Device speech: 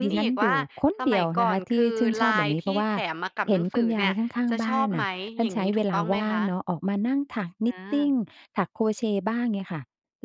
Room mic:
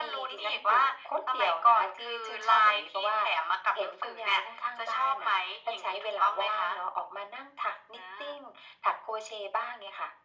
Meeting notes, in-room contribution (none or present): none